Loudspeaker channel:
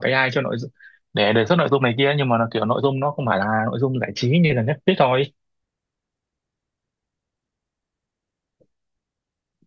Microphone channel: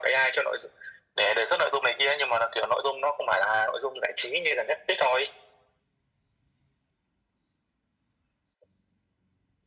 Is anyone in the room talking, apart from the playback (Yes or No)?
No